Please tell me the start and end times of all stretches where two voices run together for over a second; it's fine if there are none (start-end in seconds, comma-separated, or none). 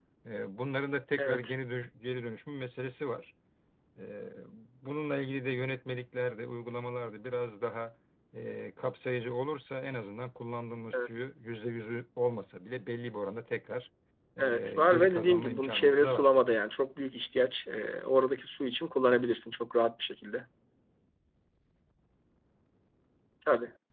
14.4-16.3